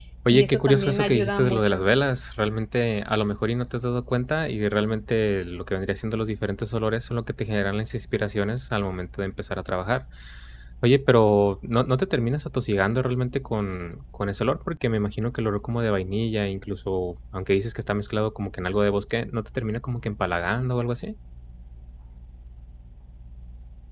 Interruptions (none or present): present